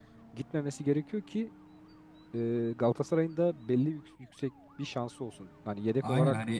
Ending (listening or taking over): taking over